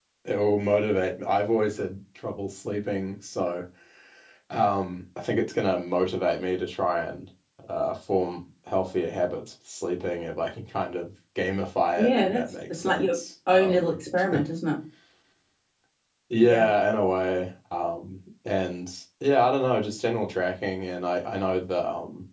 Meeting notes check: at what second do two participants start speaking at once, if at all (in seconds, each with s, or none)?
12.0 s